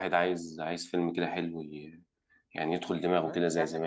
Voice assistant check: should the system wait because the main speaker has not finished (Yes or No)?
No